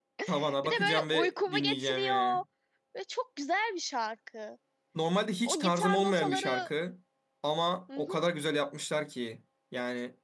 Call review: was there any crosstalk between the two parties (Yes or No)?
Yes